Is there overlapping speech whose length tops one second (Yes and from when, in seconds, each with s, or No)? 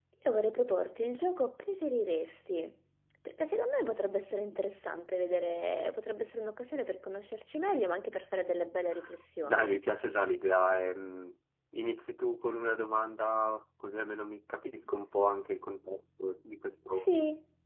No